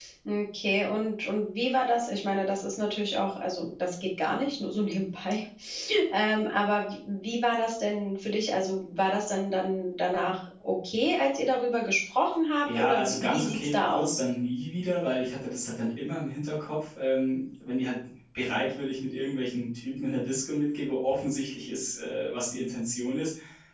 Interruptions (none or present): present